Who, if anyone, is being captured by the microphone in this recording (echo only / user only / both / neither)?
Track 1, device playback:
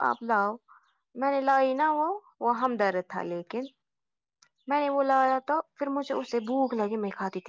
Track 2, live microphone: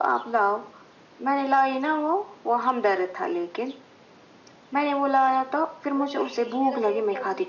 both